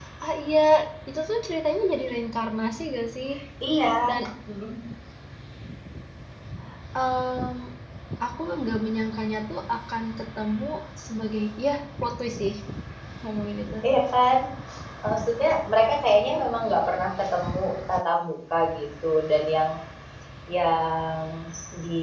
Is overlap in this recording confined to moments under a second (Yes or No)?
Yes